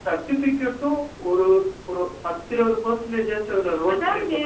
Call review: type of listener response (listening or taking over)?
taking over